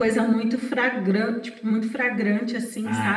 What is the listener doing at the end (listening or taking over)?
taking over